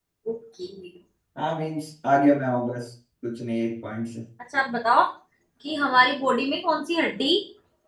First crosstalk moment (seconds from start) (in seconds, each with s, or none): none